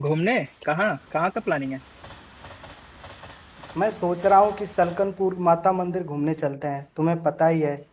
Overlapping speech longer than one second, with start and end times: none

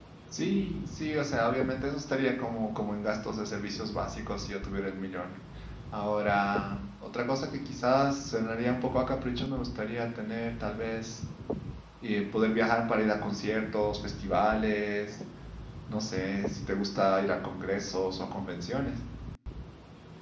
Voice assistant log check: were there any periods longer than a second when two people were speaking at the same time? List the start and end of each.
none

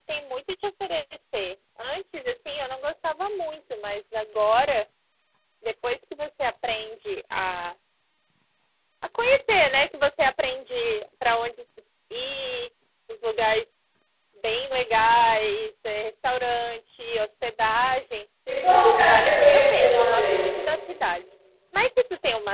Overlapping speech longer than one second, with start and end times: 19.1-20.4

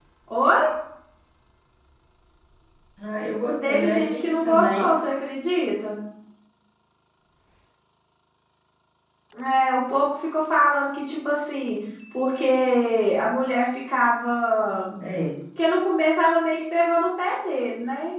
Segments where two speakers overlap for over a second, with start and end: 3.6-4.9

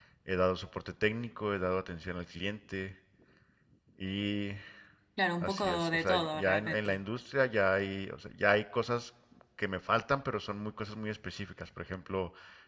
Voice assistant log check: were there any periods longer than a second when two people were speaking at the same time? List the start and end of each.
5.4-7.0

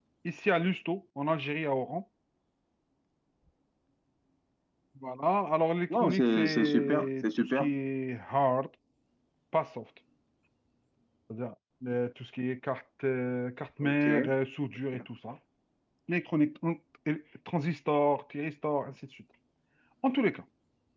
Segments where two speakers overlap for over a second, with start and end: 5.9-7.7

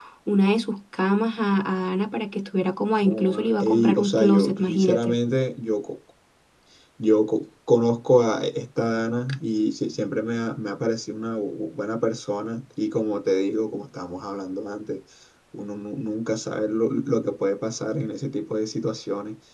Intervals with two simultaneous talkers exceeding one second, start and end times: 3.0-5.2

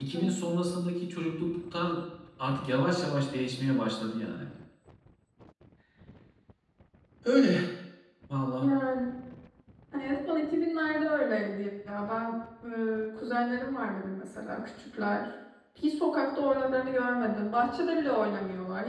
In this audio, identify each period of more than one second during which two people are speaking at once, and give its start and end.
none

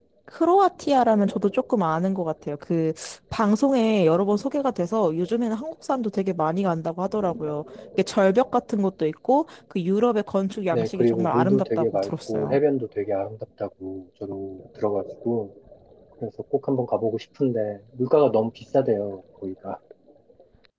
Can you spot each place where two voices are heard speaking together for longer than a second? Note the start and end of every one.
10.7-12.6

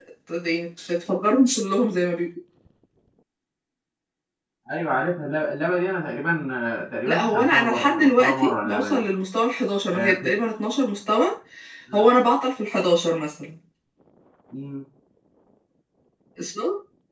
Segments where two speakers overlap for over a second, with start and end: 7.0-9.1

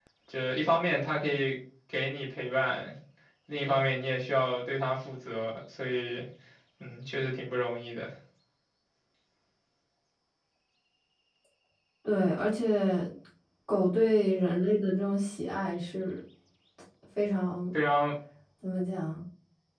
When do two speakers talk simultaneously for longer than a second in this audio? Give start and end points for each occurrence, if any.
none

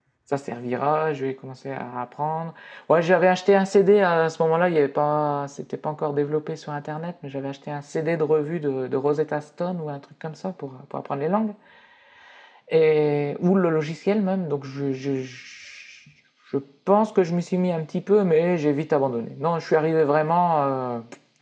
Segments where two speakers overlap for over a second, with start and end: none

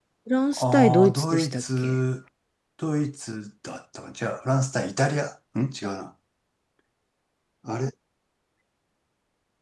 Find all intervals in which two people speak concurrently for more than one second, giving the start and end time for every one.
0.6-1.9

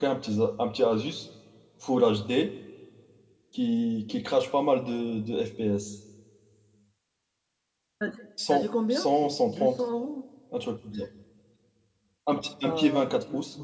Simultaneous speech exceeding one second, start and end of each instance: 8.5-9.8

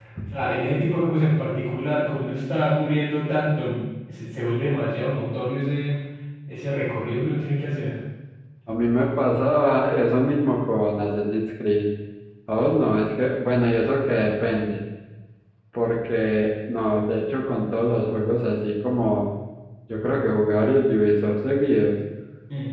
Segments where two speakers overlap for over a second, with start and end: none

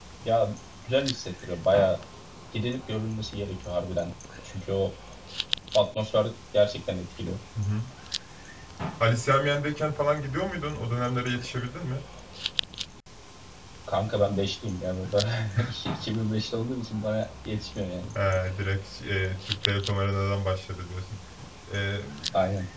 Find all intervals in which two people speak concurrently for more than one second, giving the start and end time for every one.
none

